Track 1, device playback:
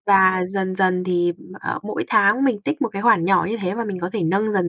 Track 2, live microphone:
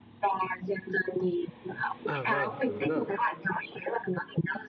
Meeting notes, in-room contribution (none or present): present